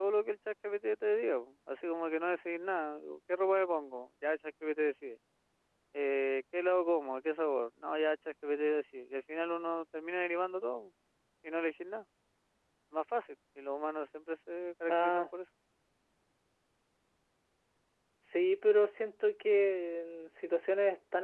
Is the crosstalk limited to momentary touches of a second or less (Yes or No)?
Yes